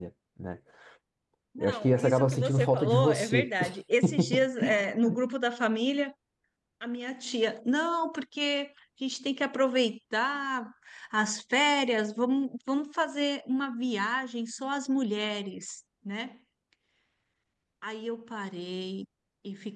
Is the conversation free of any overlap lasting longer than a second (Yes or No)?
No